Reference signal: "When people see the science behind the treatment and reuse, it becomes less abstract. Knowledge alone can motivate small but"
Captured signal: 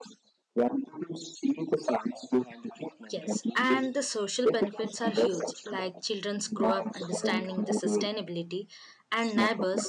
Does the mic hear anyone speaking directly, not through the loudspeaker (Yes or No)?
Yes